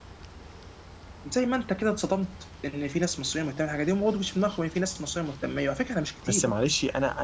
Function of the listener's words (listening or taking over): taking over